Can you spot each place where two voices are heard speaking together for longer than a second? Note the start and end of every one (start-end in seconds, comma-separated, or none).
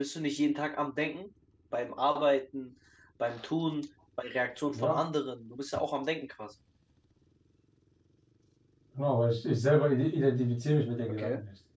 none